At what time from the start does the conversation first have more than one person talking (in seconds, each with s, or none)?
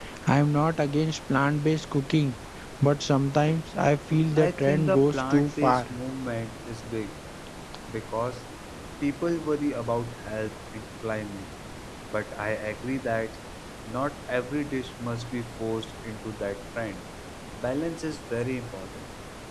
4.3 s